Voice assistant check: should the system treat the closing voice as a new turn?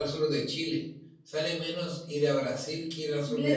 Yes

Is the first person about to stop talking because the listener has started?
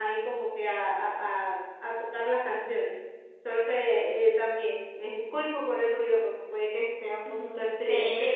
Yes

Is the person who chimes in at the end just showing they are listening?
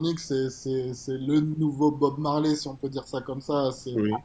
Yes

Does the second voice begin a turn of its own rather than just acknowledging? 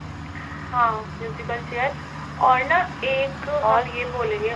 No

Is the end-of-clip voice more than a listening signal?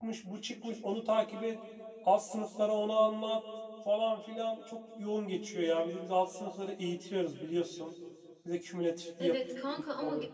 Yes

